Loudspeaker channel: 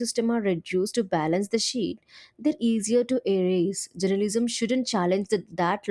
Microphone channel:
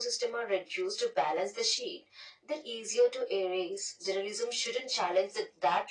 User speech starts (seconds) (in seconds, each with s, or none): none